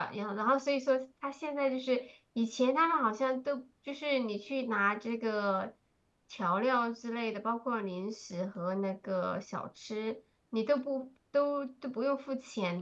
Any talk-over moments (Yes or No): No